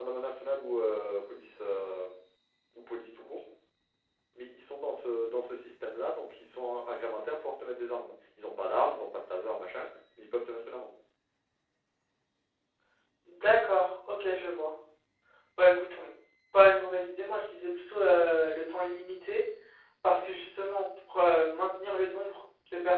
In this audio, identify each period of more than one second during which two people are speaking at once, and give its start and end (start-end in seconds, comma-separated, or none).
none